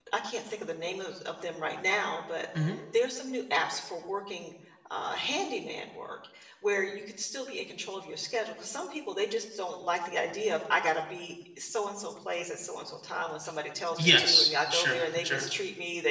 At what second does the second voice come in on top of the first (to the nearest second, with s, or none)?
14 s